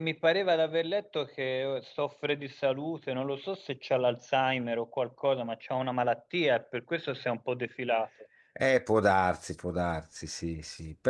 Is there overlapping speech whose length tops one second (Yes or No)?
No